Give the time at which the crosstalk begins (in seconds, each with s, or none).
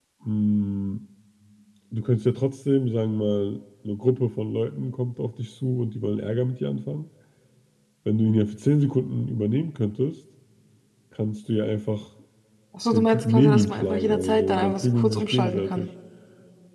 12.9 s